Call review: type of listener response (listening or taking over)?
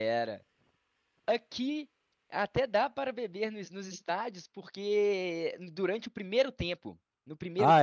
listening